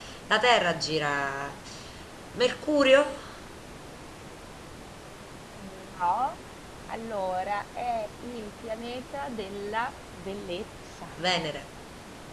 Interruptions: none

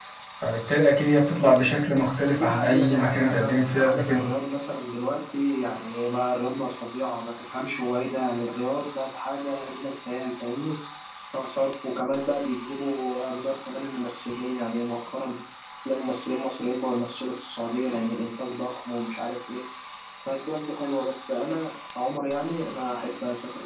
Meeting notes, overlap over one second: present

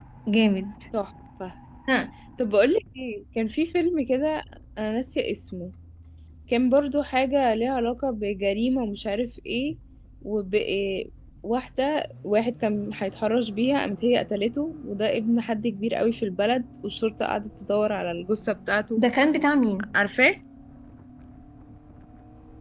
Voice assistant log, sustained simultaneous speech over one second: none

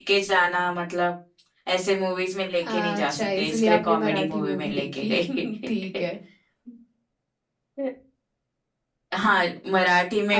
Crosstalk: present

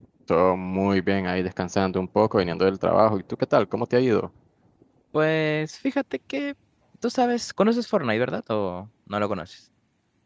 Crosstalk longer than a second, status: none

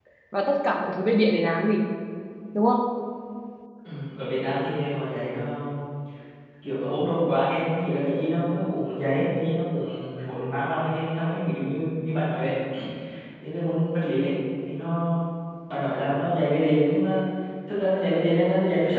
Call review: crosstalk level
none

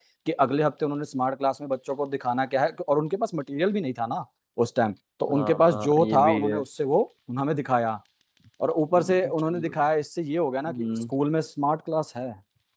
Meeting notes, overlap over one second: present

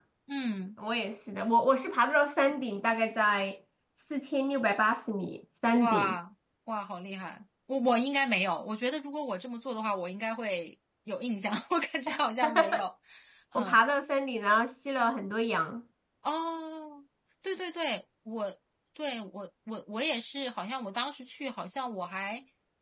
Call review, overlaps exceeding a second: none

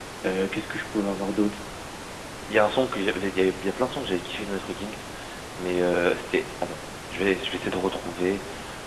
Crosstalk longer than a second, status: none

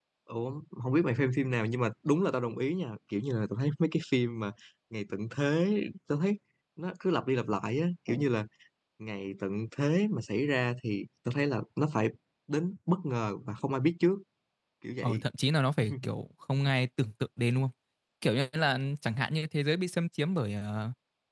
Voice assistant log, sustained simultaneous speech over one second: none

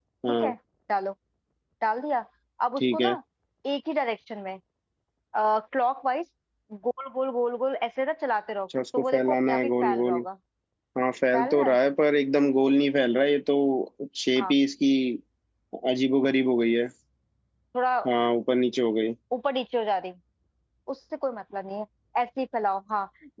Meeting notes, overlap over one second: present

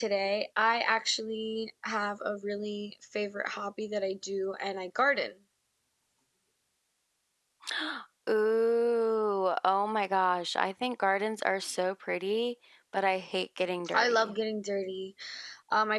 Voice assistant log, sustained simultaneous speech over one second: none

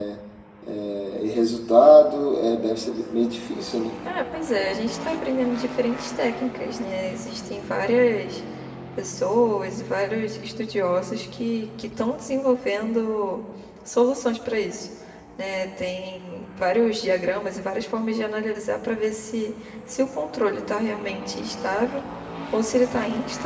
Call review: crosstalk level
none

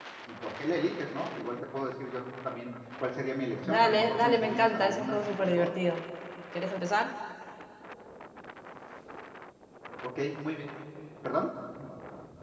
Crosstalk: present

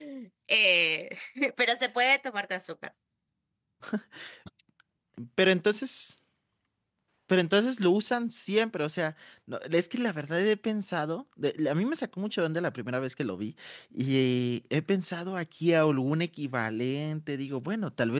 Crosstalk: none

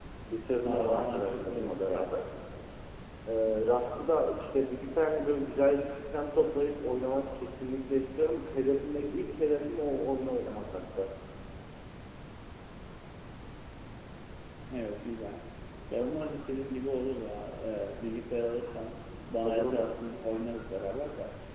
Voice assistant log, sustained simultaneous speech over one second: present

